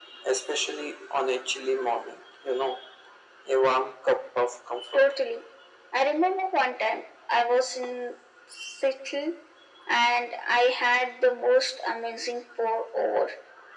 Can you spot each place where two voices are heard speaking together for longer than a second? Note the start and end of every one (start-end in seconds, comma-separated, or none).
none